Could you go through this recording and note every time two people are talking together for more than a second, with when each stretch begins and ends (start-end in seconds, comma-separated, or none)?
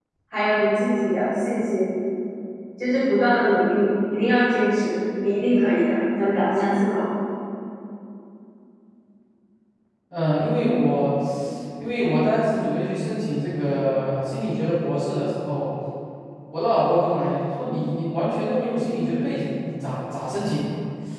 none